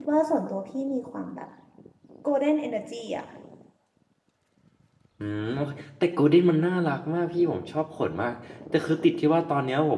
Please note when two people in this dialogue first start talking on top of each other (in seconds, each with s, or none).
none